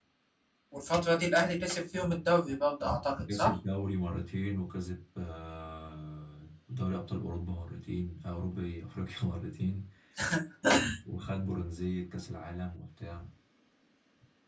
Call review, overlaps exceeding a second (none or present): none